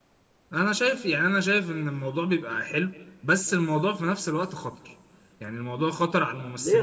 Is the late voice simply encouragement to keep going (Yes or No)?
No